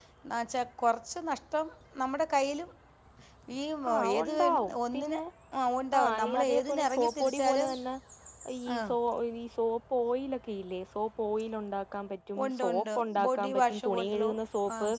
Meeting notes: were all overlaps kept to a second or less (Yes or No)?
No